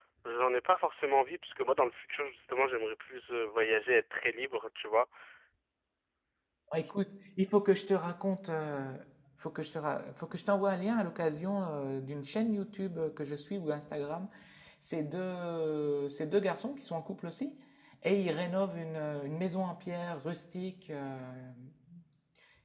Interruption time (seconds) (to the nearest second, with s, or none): none